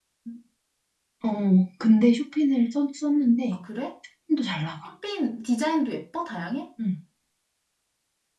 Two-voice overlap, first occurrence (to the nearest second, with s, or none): none